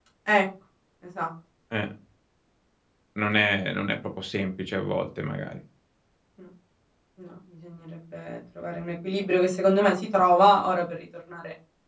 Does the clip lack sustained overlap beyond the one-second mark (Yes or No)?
Yes